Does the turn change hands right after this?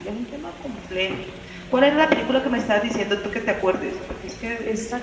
Yes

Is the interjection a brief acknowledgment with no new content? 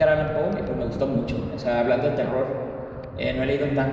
Yes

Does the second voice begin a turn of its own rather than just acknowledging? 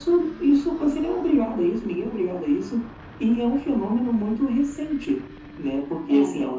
No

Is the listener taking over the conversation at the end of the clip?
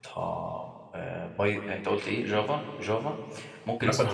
No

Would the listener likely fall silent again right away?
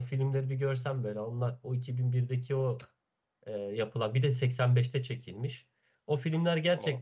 Yes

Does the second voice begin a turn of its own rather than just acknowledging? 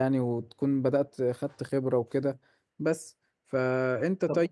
No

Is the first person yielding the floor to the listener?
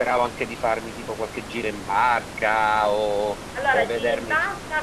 Yes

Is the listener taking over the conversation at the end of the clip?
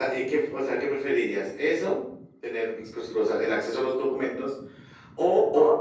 No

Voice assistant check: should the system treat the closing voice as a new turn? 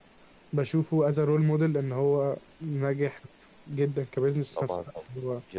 Yes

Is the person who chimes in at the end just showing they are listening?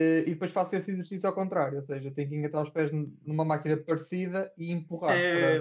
No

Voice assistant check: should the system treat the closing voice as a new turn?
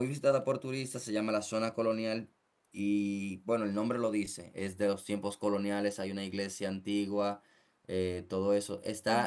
No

